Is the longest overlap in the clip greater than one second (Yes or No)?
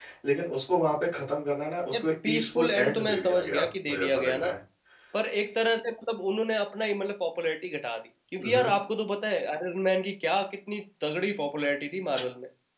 Yes